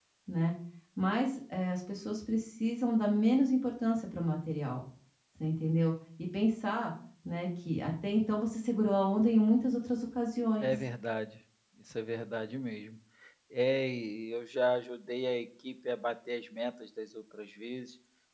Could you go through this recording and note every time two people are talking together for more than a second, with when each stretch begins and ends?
none

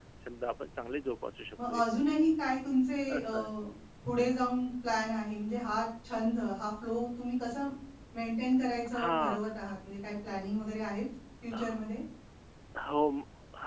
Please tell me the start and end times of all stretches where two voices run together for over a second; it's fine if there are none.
none

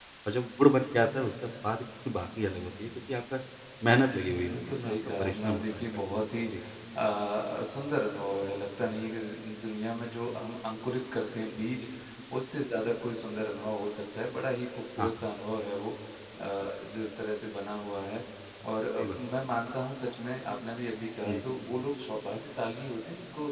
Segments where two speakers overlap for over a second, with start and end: 4.4-6.2

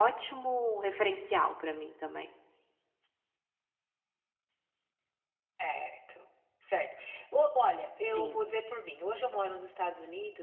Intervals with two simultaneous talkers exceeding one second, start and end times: none

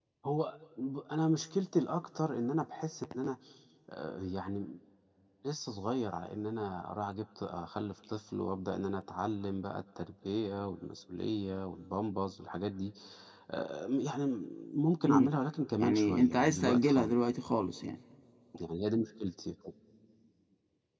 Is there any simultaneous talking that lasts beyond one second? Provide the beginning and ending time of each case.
15.8-17.1

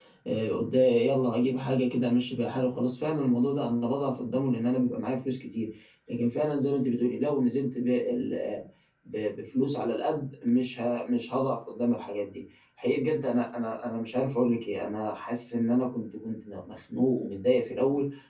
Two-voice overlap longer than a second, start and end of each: none

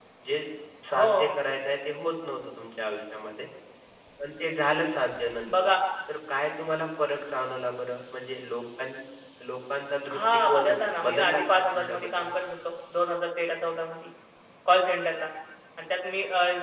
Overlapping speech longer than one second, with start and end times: 10.1-12.2

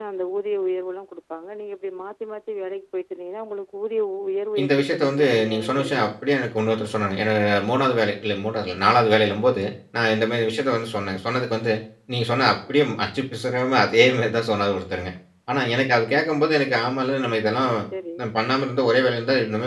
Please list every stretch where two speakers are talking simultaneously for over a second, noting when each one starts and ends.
4.6-6.0

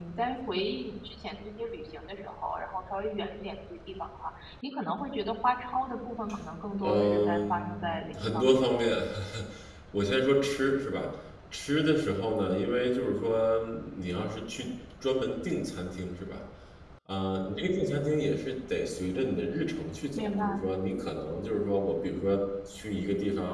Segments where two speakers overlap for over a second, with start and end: 6.8-8.6

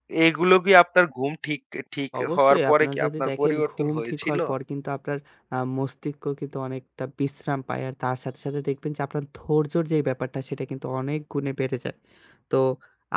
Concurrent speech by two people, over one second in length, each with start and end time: 2.2-4.4

